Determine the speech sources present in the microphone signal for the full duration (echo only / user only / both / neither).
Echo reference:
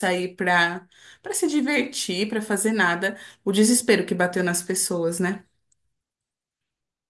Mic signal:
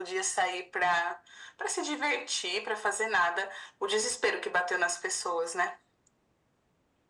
echo only